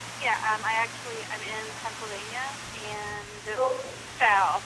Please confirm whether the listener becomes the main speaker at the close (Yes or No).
No